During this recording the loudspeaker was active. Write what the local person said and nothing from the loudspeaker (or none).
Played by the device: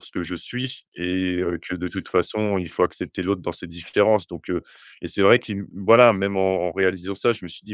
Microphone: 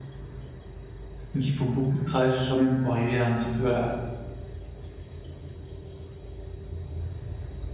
Donc il faut beaucoup de travail sur soi-même pour arriver un petit peu à